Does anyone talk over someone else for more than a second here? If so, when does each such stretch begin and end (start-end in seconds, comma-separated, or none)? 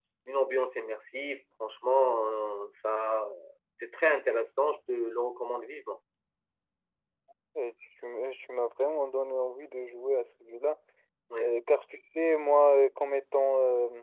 none